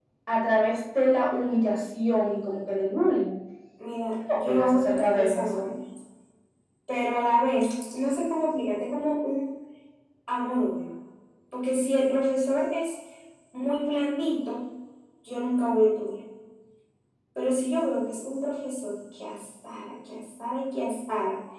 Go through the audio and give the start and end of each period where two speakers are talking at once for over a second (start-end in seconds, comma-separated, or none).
4.5-5.7